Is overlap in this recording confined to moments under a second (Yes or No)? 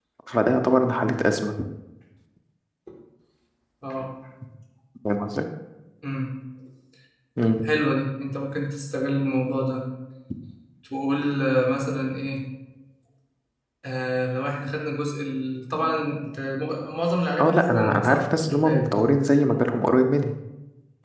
No